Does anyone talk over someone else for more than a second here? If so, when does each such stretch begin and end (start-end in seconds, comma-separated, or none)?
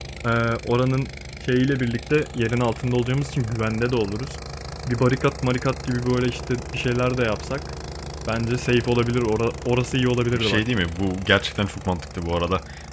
none